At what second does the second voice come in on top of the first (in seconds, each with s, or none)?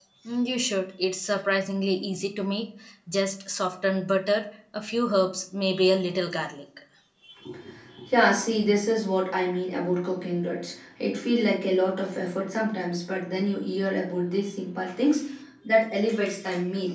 none